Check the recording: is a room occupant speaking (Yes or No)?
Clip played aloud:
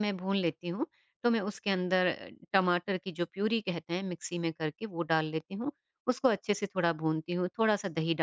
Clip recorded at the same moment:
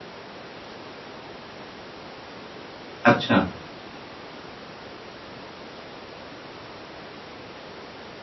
Yes